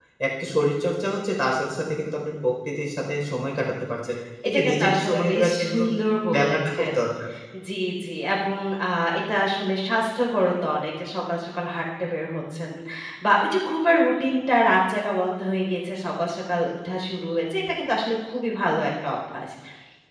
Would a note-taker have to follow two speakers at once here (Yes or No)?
Yes